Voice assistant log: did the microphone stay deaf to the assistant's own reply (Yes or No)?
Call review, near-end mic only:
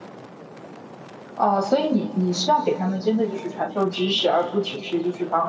Yes